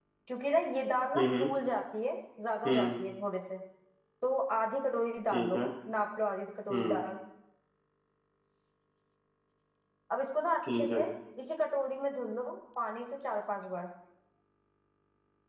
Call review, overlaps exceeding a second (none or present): none